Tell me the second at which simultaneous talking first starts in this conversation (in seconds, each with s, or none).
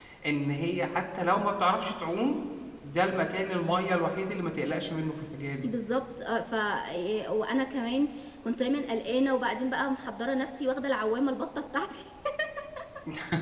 none